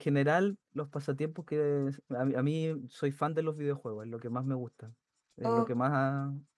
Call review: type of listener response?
listening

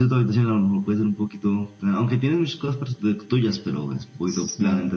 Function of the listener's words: taking over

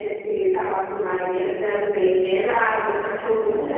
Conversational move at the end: listening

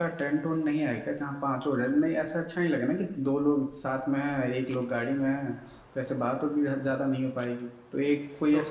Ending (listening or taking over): taking over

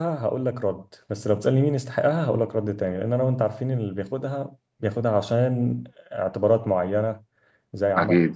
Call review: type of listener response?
listening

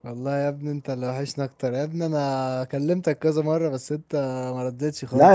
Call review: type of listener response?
taking over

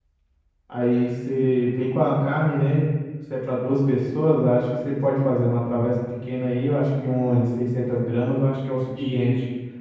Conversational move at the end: taking over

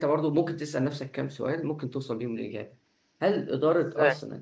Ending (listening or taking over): listening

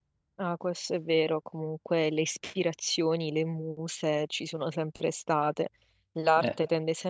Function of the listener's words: listening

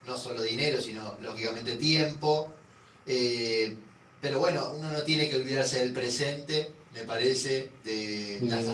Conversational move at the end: listening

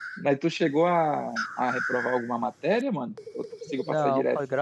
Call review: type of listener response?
taking over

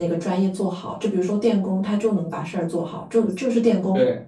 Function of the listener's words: listening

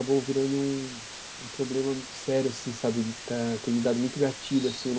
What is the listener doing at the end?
listening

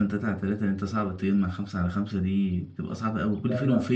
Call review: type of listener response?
listening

